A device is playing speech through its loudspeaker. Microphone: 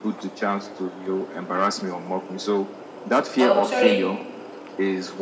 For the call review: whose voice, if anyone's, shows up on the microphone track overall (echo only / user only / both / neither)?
both